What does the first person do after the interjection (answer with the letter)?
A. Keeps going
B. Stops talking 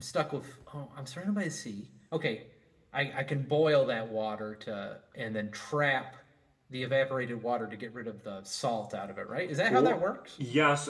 B